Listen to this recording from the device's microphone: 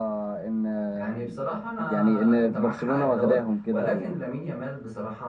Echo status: present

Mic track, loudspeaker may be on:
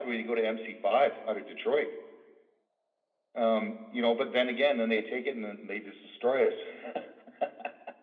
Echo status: present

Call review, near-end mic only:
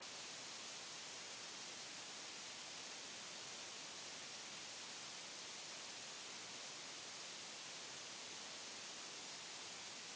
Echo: none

